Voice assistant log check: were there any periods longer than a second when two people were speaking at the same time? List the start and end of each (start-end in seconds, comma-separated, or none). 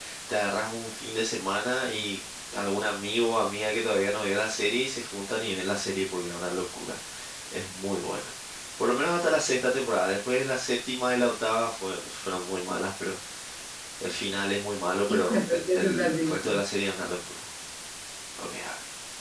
15.1-16.6